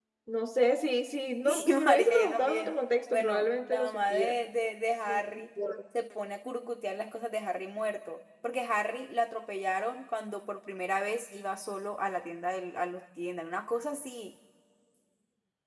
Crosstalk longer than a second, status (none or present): present